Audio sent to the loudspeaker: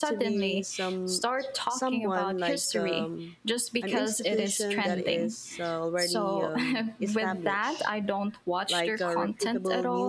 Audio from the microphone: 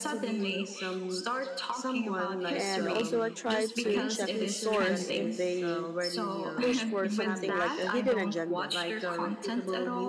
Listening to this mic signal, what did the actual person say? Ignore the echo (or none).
And also, I try to check the source if they push for something like a hidden agenda.